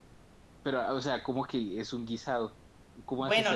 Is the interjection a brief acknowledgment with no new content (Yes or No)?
No